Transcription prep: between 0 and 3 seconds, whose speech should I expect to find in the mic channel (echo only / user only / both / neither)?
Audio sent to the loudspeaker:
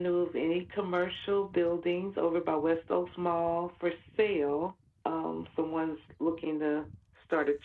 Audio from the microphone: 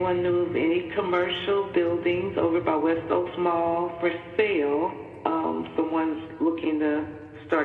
echo only